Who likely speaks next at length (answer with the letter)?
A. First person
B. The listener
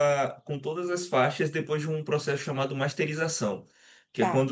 A